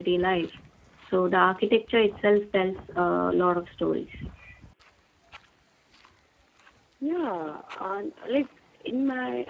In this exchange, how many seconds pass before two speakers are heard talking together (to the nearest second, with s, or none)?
none